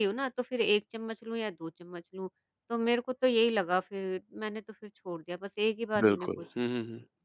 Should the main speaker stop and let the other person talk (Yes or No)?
Yes